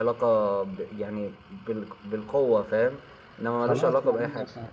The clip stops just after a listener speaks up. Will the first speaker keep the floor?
No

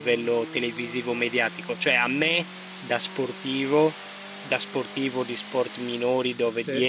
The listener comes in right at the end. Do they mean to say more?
No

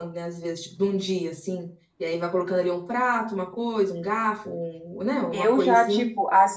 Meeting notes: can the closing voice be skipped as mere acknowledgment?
No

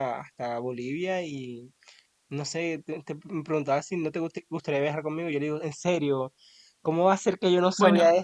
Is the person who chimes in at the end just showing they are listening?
No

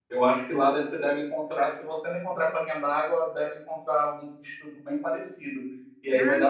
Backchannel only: Yes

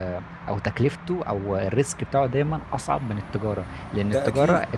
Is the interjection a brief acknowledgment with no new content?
Yes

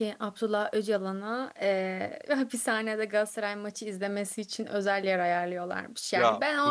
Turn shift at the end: No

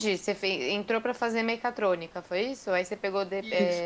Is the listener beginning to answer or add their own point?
No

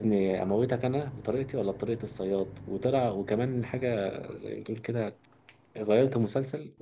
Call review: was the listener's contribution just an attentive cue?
Yes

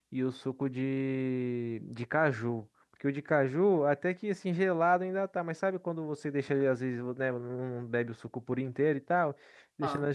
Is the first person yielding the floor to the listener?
No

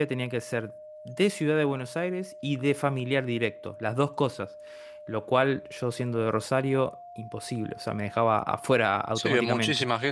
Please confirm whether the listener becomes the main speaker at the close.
Yes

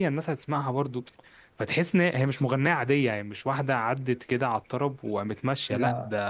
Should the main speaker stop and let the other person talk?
No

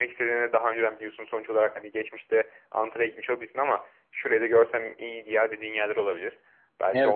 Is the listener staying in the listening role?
No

